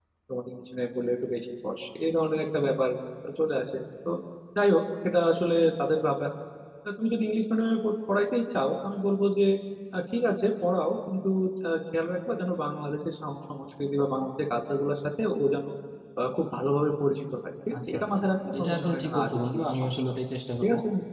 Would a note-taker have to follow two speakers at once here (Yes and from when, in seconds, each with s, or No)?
Yes, from 17.7 s